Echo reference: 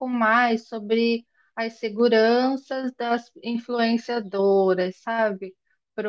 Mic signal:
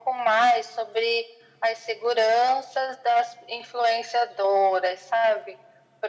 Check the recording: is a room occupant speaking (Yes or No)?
No